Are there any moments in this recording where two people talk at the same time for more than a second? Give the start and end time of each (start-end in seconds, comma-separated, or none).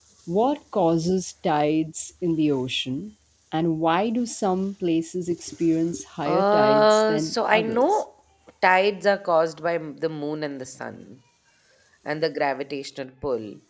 6.2-8.0